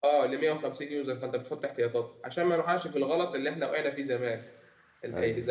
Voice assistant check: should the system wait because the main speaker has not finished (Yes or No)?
Yes